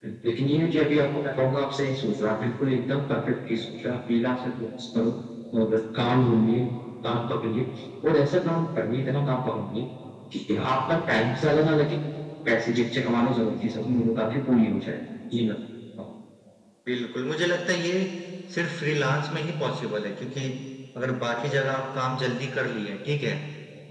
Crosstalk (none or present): none